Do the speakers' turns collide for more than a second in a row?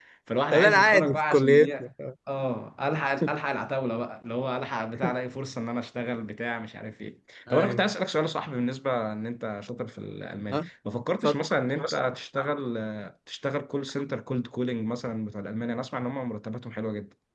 Yes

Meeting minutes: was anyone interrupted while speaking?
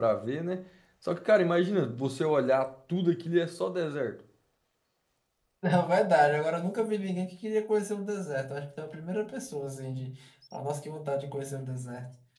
No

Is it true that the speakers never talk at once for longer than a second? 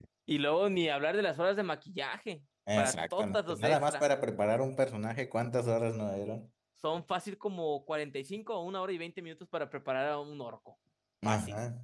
No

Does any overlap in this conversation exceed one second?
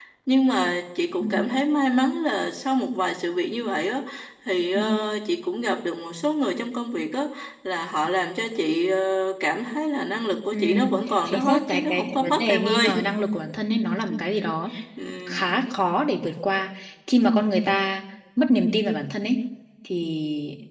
Yes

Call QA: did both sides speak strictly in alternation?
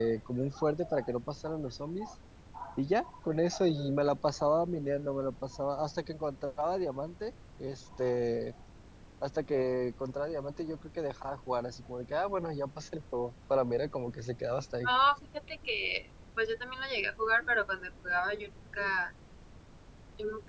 Yes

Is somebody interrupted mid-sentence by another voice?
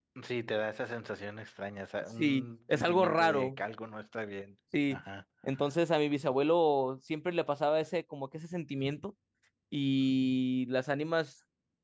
Yes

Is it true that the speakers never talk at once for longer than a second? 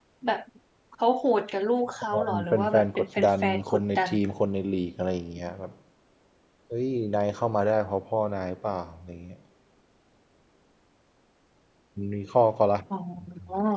No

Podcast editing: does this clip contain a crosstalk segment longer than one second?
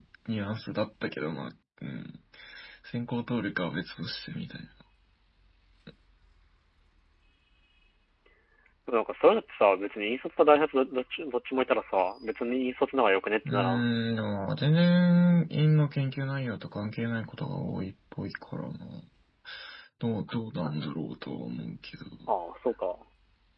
No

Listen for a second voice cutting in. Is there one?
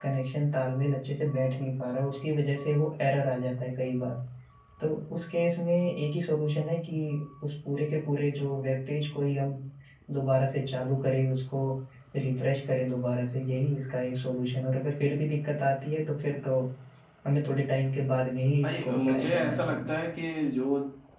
Yes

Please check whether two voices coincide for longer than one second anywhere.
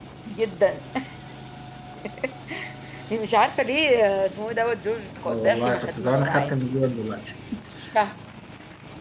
Yes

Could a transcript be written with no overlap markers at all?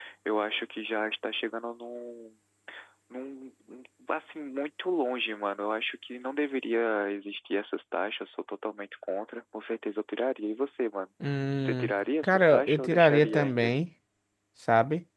No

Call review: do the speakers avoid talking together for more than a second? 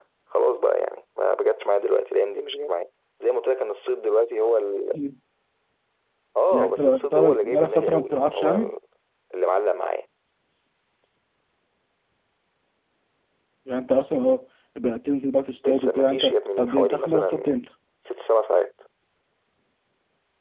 No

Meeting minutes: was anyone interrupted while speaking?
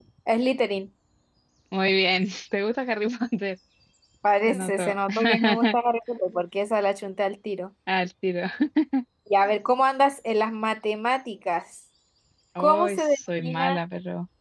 Yes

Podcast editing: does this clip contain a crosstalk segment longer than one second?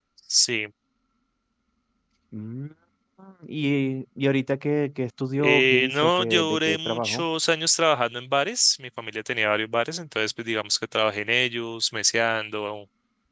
Yes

